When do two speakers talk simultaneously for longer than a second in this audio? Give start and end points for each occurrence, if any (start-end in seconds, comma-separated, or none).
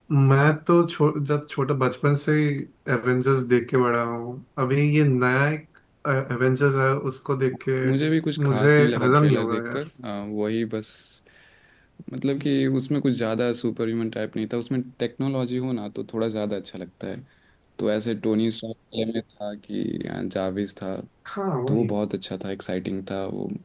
8.4-9.8